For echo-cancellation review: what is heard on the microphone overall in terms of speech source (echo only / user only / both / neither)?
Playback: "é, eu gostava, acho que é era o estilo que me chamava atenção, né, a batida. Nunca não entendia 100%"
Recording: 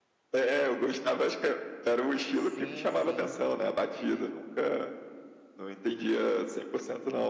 both